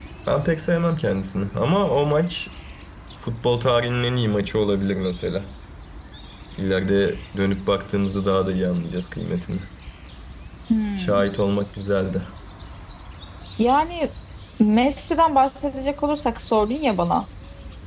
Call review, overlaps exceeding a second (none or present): none